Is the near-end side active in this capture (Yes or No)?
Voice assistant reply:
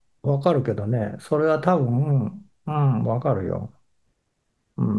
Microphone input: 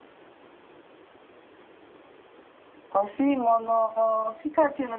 Yes